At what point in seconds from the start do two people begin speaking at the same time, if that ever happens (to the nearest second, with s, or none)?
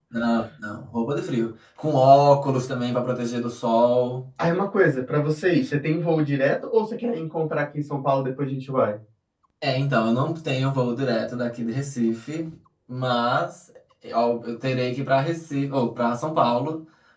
none